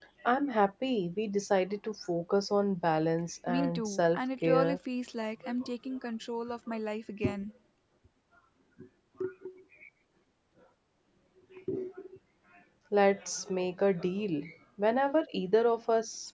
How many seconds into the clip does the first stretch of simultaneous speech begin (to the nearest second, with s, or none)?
3 s